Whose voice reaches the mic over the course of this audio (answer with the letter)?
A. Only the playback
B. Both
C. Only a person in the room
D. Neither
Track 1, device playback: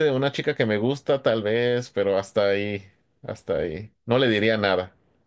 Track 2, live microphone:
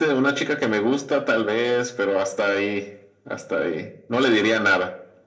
A